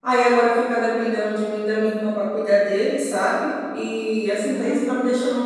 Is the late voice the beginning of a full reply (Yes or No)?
No